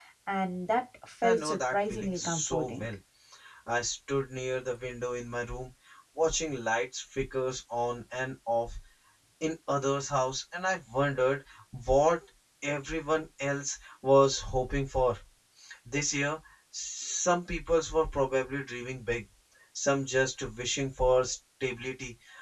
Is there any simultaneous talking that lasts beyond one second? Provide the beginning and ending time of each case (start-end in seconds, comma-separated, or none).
1.2-2.9